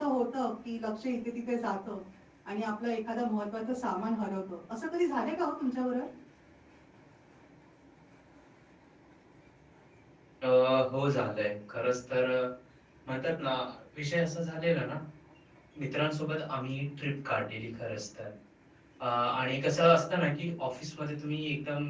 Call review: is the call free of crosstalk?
Yes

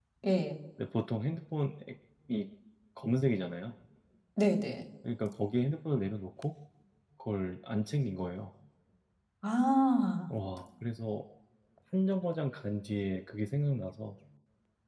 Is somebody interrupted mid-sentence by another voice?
No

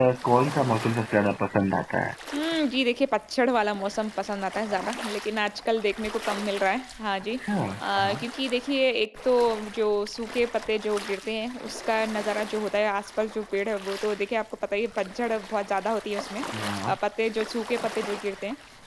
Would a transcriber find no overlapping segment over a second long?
Yes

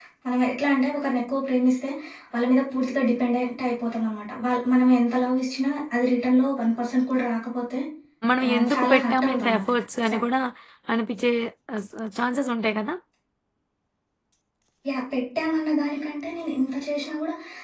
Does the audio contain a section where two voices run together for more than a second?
Yes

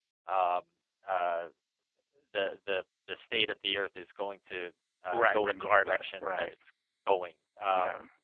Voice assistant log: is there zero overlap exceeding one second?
No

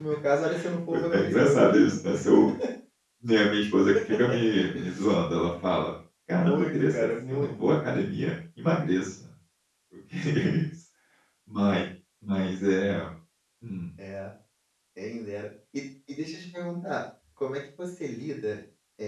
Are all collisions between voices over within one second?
No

